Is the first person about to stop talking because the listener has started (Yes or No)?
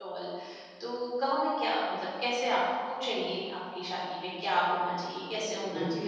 No